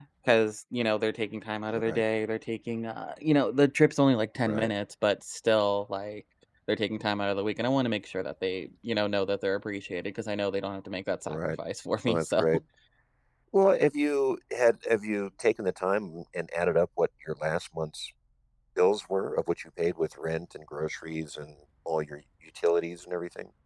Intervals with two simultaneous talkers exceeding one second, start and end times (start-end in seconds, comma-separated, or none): none